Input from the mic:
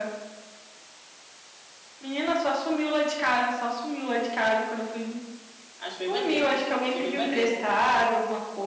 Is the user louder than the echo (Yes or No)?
No